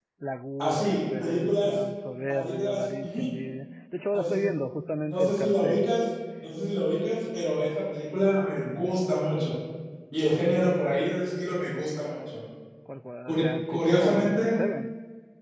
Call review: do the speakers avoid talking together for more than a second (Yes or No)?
No